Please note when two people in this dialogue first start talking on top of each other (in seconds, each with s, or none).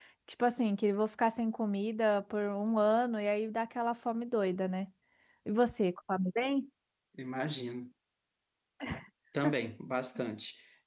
none